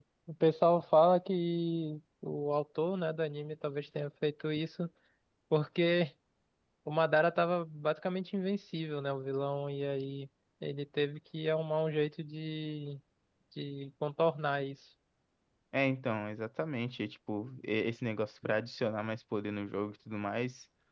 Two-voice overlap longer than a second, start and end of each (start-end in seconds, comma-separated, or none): none